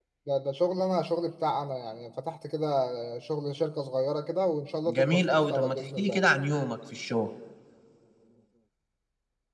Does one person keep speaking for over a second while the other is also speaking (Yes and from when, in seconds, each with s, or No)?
Yes, from 4.9 s